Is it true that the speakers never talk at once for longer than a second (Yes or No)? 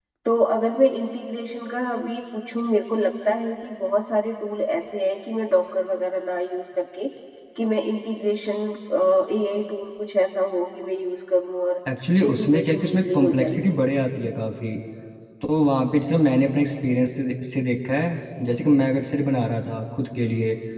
No